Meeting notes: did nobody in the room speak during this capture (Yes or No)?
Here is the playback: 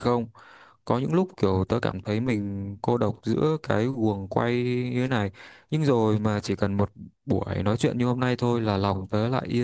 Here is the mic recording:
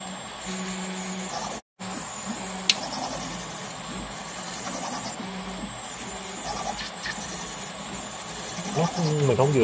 No